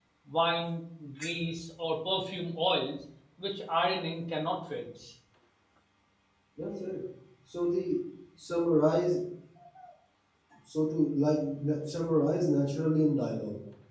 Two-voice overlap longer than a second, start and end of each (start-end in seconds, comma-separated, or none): none